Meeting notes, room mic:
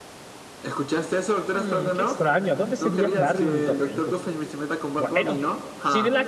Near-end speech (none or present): present